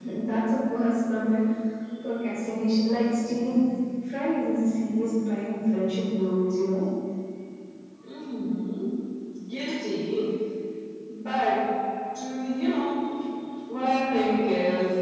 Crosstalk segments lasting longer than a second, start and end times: none

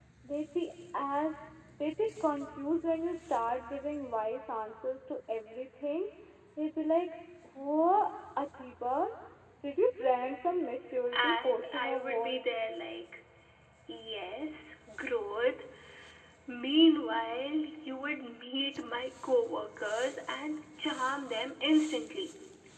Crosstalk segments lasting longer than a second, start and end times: 11.1-12.4

